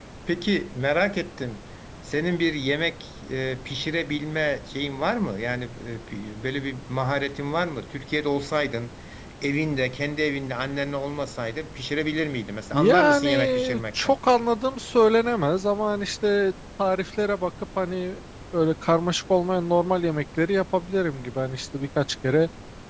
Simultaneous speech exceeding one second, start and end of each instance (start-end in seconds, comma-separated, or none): 12.7-14.2